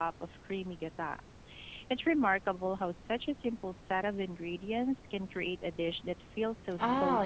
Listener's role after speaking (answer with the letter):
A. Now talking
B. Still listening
A